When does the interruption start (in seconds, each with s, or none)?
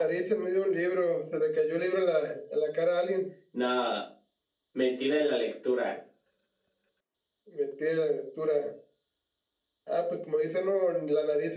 none